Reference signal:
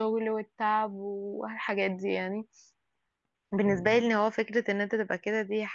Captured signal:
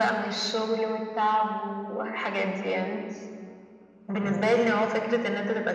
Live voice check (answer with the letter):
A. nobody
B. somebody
A